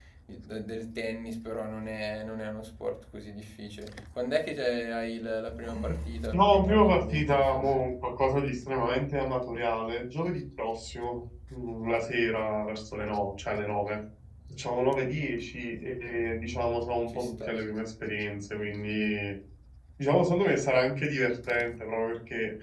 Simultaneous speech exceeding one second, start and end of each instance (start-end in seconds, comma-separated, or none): 6.3-7.7